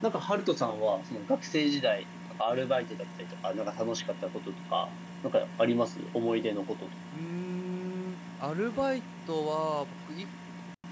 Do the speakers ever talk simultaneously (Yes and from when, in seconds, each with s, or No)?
No